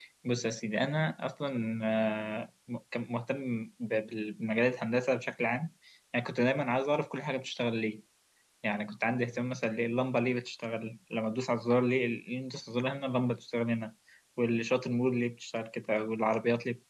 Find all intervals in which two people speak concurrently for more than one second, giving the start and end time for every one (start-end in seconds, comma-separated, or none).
none